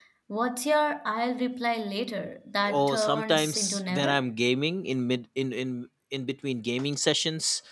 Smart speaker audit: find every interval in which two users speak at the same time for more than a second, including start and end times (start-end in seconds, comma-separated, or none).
2.7-4.2